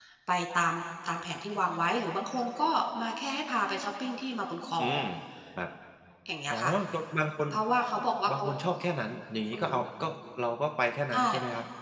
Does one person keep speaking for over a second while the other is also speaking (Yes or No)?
No